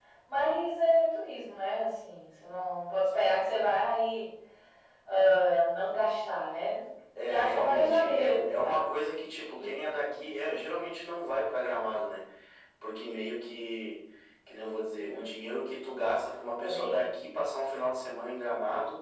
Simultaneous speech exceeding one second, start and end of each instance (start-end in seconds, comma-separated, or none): 7.2-8.9